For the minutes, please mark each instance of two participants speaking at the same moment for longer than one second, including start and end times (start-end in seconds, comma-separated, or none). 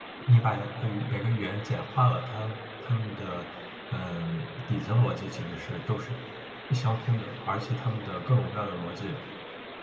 none